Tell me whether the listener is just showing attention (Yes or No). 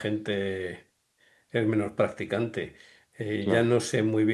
Yes